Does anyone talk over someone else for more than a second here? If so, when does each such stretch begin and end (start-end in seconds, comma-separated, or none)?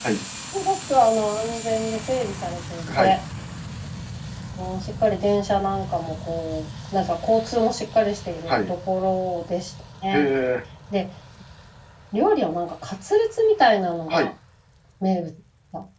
none